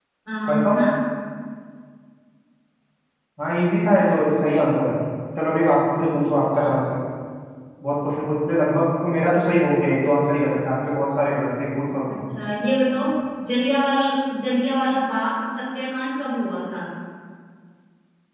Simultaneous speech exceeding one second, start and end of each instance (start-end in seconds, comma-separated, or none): none